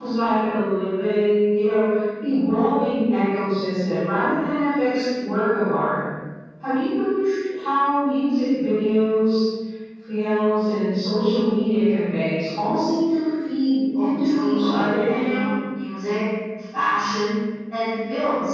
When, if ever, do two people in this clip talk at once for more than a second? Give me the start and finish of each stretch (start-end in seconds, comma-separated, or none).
14.0-15.5